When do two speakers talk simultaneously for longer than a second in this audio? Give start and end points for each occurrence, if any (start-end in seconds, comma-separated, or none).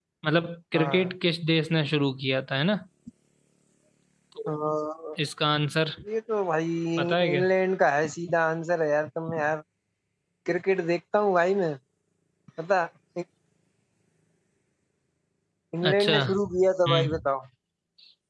15.9-17.2